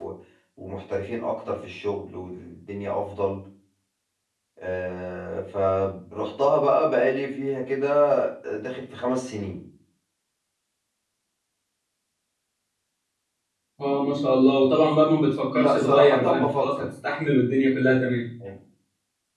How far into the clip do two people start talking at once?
16 s

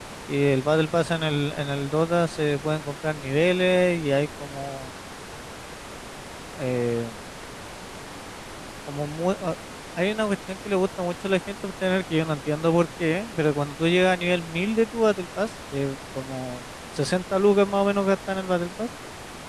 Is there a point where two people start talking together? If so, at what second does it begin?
none

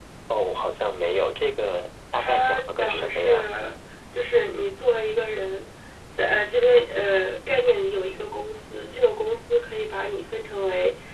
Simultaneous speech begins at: 2 s

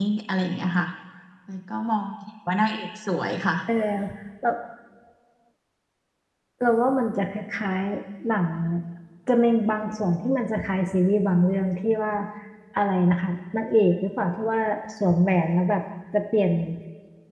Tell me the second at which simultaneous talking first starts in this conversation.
none

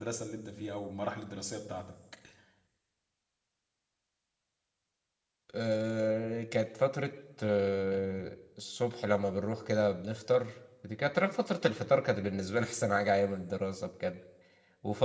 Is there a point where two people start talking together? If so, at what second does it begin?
none

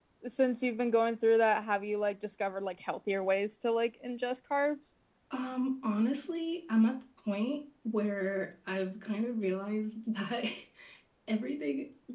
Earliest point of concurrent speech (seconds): none

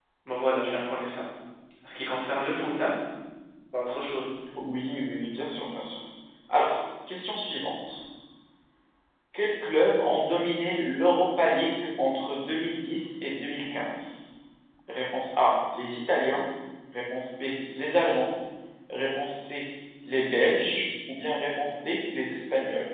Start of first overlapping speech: none

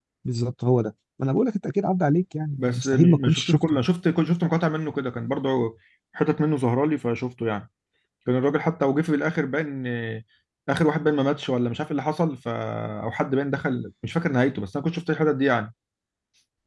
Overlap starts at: 3 s

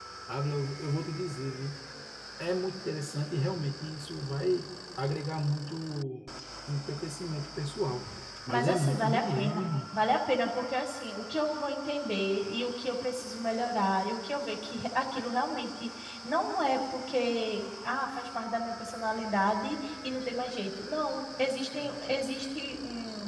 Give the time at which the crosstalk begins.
8 s

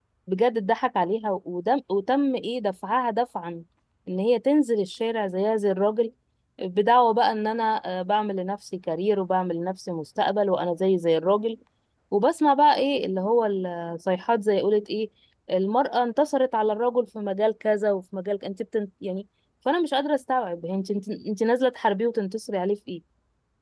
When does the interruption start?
none

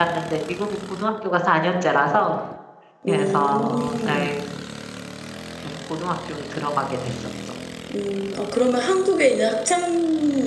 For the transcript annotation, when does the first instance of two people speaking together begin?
3 s

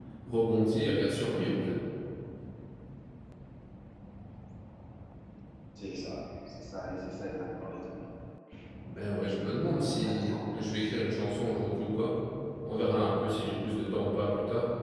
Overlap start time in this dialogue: 10 s

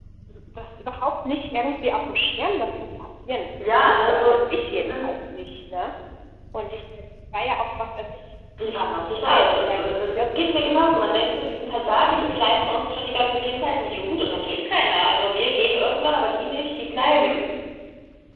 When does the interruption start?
4 s

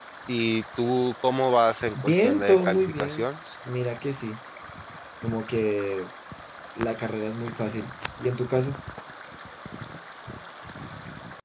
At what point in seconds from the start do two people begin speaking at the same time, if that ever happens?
2 s

